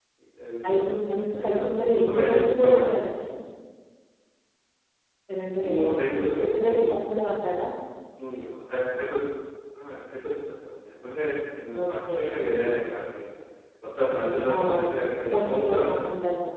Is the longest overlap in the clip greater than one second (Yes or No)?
Yes